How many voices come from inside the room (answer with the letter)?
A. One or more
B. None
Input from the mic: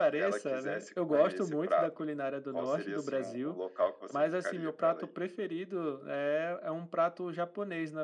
B